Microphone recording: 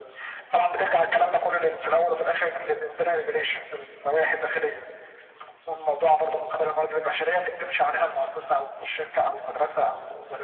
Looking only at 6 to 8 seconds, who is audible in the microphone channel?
echo only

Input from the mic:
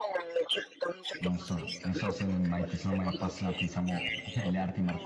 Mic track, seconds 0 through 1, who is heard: echo only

